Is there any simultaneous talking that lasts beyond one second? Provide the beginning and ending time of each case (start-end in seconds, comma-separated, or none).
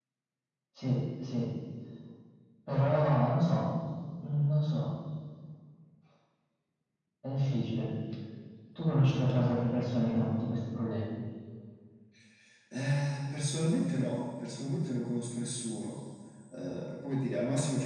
none